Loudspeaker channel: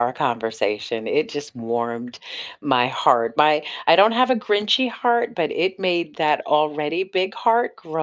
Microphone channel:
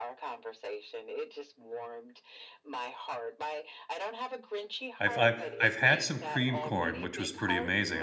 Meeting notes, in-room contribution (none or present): present